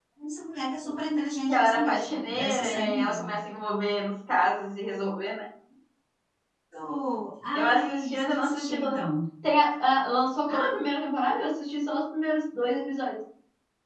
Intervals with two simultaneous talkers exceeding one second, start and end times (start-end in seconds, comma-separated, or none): 1.5-3.4, 7.5-9.1